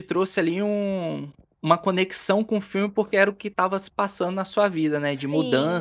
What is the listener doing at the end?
taking over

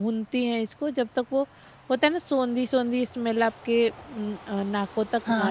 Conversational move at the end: taking over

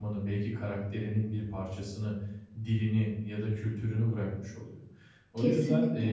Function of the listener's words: listening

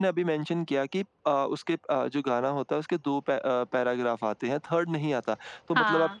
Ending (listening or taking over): listening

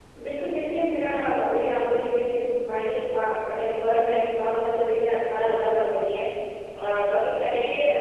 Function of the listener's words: listening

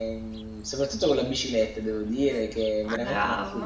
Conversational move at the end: listening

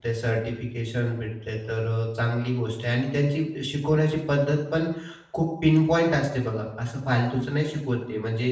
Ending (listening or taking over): listening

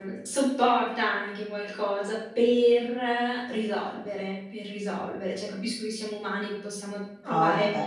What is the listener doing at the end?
taking over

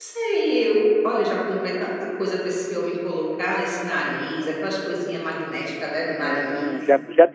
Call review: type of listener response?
taking over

